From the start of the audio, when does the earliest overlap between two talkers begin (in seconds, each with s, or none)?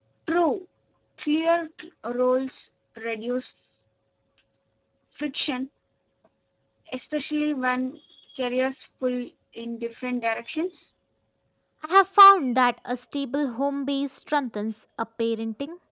none